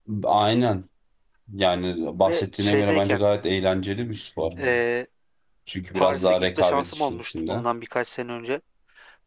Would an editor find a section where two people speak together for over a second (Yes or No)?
Yes